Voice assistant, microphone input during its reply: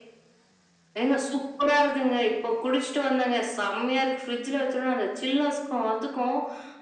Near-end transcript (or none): none